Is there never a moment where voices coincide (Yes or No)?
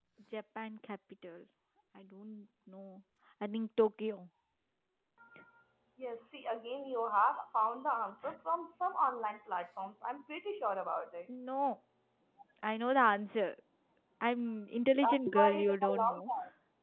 No